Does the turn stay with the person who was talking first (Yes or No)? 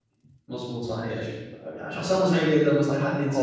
No